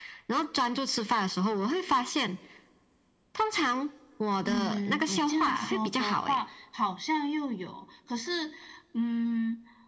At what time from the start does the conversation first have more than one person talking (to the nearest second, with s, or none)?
4 s